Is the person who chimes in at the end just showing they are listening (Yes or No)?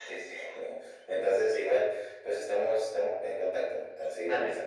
No